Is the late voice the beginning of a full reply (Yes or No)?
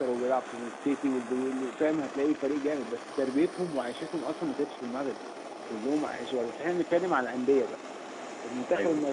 No